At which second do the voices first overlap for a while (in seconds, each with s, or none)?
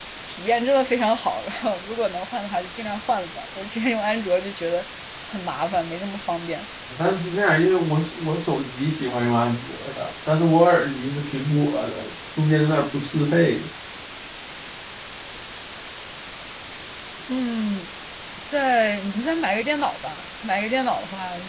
none